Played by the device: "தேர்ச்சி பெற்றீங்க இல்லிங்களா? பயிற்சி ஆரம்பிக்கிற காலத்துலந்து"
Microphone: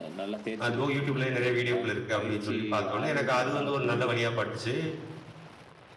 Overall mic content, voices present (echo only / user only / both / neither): both